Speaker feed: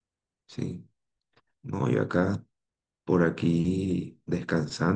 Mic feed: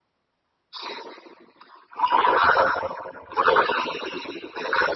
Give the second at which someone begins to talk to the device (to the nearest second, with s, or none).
none